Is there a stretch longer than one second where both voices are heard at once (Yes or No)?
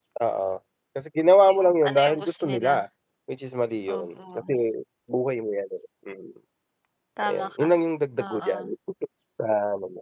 Yes